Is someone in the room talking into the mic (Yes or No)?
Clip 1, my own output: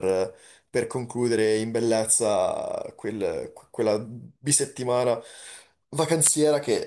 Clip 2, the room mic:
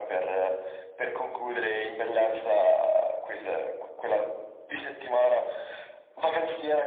No